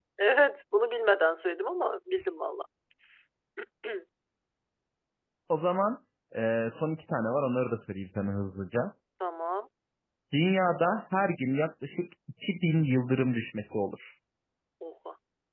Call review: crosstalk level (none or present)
none